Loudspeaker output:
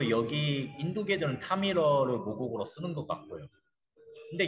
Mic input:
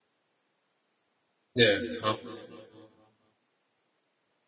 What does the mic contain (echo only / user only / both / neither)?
user only